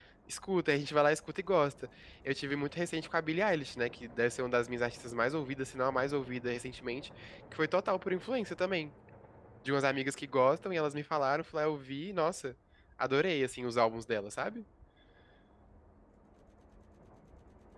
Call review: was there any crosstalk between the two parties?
No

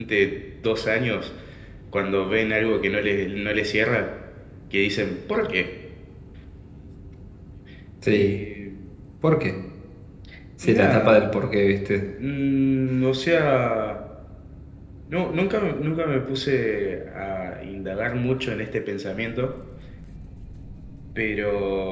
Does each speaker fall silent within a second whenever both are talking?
Yes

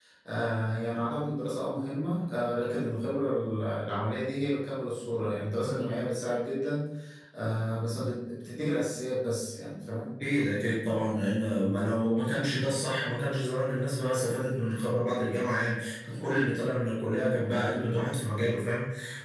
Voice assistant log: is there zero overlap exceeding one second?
Yes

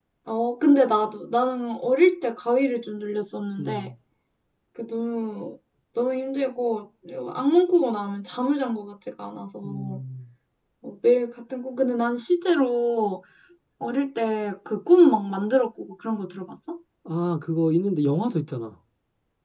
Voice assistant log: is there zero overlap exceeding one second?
Yes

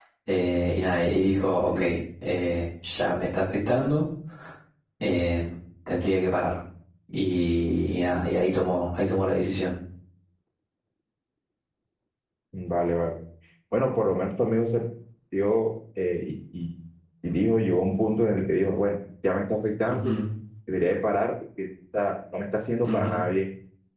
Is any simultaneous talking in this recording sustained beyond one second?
No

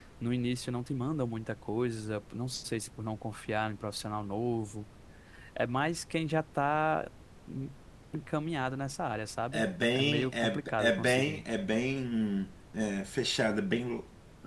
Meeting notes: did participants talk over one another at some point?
Yes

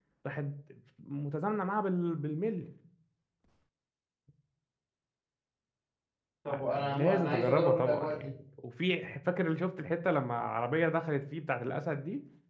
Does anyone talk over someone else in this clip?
Yes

